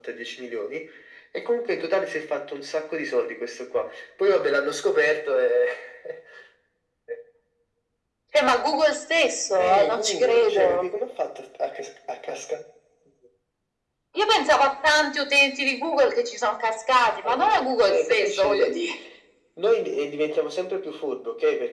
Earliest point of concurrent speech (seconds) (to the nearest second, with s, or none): 10 s